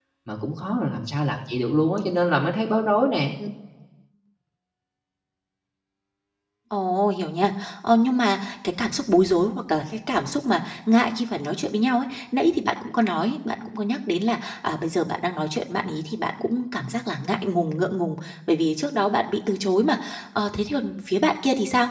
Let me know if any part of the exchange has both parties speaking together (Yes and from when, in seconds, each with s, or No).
No